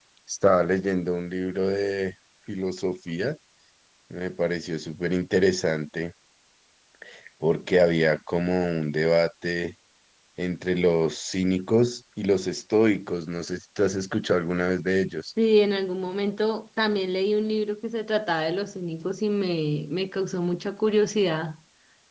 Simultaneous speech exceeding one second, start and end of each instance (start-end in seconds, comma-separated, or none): none